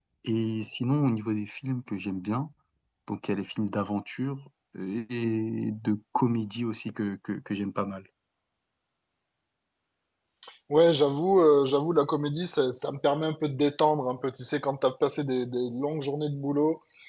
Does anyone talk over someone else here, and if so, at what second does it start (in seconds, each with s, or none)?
none